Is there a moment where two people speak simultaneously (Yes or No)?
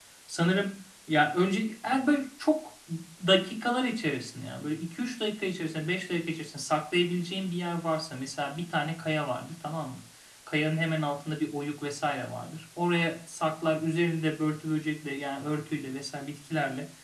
No